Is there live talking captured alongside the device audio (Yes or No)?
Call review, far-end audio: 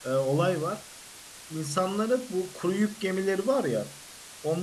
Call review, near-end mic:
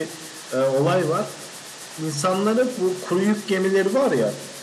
No